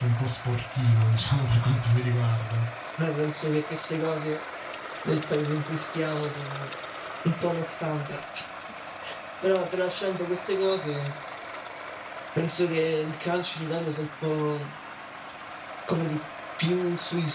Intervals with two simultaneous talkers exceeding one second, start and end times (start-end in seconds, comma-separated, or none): none